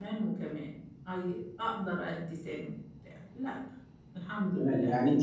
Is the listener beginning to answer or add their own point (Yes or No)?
Yes